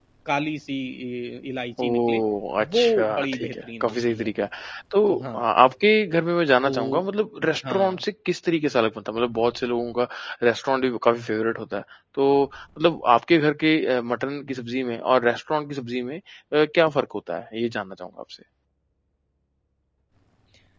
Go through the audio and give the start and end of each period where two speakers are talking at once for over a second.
2.6-4.3

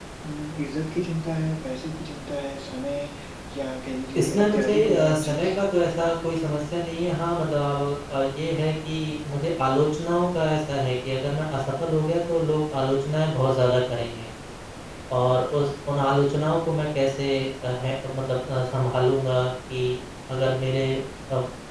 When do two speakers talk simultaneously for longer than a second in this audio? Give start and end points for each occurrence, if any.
4.2-5.5

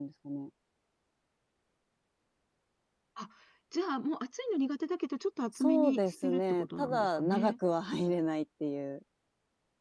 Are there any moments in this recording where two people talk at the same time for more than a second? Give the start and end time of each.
5.6-7.5

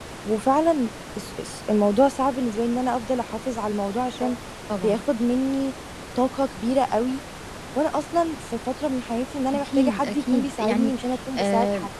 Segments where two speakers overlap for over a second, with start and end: 9.5-10.9

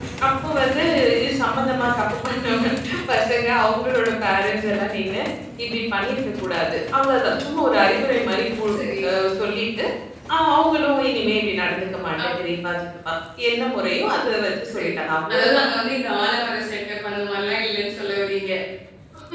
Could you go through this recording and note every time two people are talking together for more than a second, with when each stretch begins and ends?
none

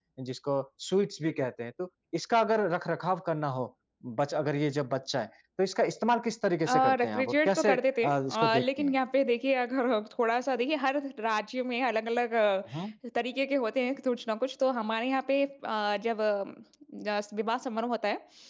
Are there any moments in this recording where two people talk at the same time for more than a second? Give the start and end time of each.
6.7-8.9

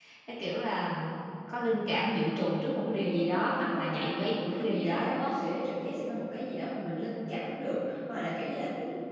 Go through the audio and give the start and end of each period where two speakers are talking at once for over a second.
2.9-5.3

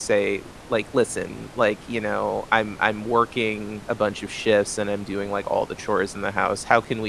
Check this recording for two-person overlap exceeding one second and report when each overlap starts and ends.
none

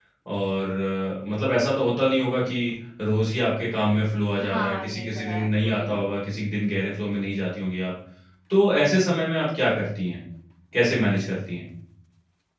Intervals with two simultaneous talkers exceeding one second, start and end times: 4.4-6.0

